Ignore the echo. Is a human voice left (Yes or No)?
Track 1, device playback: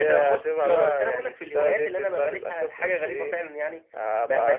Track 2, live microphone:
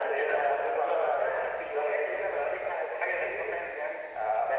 No